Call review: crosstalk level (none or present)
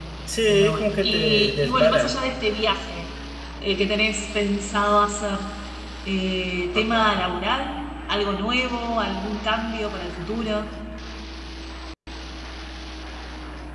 present